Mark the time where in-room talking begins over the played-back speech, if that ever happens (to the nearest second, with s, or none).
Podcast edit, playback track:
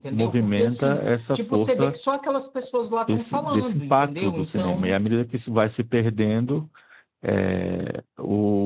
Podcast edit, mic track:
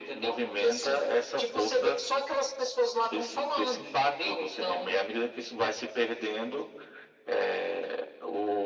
none